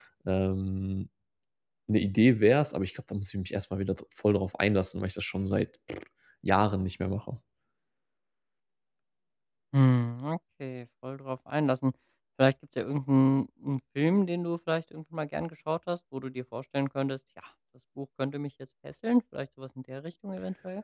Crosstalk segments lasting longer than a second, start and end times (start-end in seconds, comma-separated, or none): none